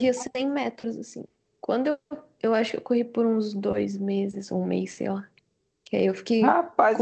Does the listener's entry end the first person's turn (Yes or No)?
Yes